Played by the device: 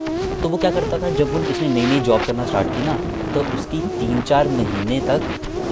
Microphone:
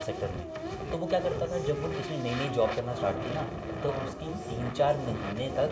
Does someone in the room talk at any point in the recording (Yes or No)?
Yes